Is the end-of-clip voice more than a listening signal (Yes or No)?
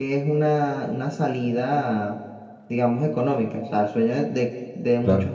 No